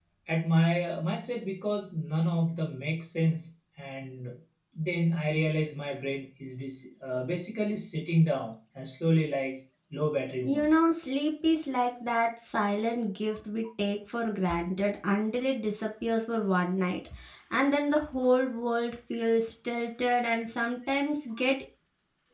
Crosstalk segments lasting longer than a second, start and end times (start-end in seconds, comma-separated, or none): none